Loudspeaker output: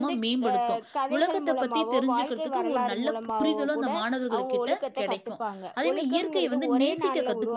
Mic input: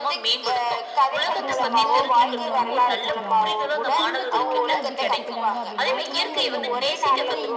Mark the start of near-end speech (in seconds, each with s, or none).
1.3 s